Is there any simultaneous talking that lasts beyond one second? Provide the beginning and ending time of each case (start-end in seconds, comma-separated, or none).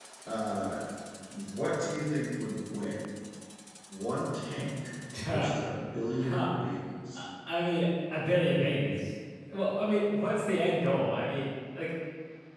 none